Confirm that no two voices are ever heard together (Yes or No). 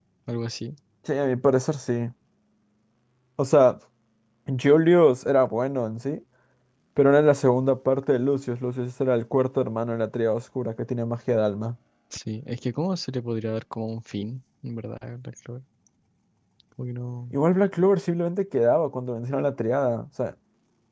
Yes